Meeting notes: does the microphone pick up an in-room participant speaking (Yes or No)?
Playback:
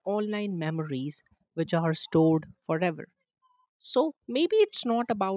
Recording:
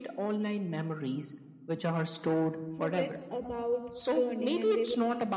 Yes